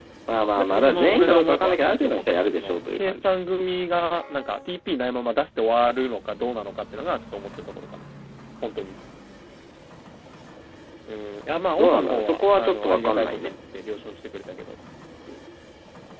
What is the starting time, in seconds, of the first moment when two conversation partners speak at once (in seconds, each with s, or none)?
0.6 s